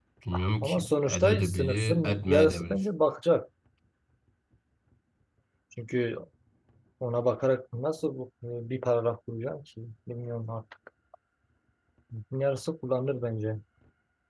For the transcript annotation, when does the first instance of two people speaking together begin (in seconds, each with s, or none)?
0.6 s